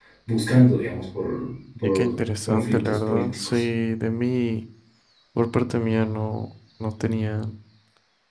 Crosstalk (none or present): present